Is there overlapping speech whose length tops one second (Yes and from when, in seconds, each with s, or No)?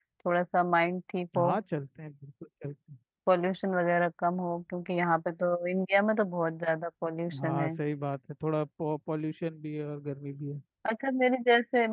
No